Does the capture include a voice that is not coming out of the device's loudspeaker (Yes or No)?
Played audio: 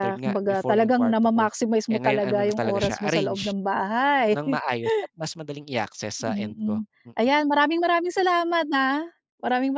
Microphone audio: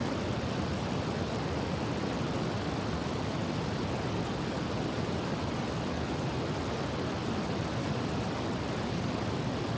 No